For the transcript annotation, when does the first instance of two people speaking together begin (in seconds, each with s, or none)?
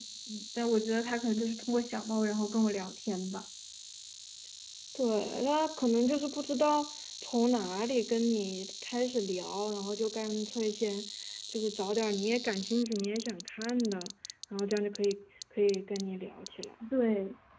none